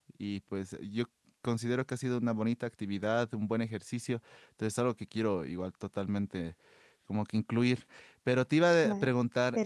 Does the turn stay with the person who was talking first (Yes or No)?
No